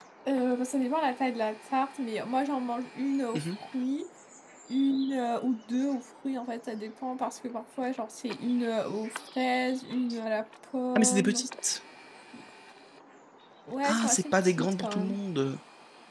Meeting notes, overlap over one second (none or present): present